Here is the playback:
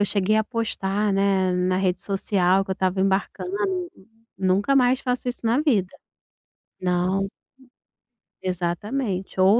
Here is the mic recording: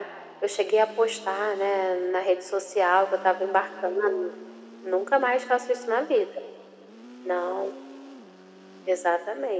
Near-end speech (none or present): none